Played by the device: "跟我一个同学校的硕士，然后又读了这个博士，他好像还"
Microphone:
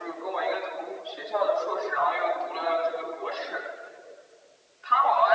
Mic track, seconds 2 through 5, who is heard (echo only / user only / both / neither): echo only